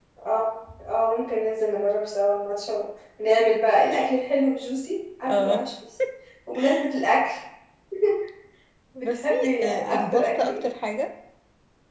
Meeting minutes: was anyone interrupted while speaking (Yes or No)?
Yes